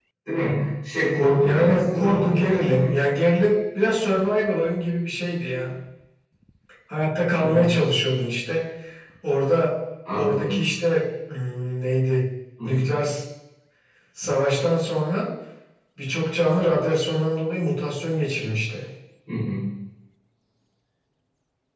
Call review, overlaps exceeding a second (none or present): present